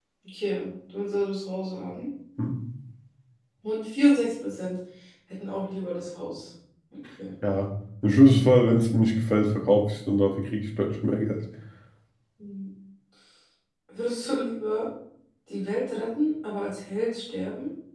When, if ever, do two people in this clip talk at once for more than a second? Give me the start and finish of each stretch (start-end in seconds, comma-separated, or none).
none